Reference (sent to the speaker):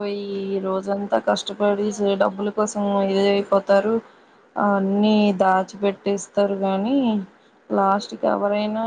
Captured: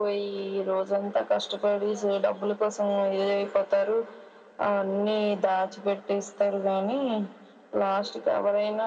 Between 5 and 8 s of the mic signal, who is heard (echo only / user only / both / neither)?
echo only